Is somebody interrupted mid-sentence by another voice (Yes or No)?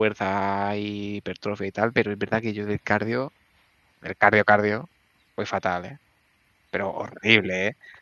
No